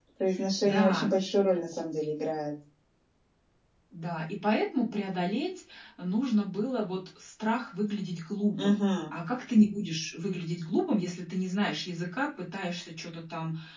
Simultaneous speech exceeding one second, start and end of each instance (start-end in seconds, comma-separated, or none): none